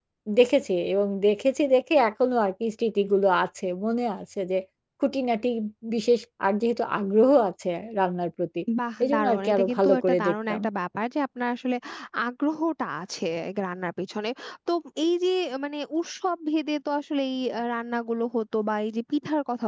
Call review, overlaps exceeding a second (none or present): present